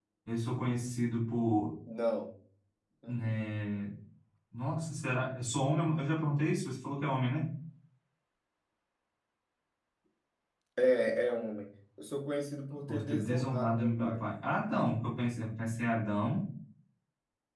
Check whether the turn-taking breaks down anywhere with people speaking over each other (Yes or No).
Yes